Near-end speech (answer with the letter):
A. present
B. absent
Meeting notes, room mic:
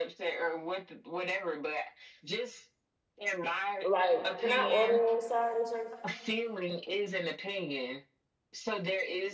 A